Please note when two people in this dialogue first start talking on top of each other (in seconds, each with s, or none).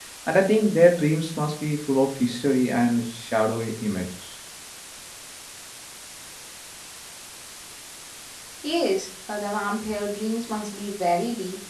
none